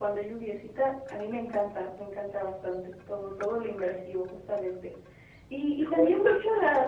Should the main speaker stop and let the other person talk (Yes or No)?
No